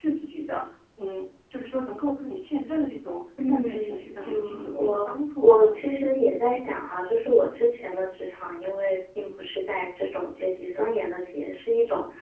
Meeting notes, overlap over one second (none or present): present